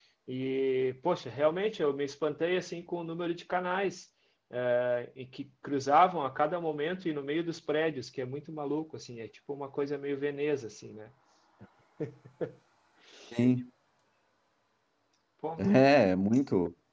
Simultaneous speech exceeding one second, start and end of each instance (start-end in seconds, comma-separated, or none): none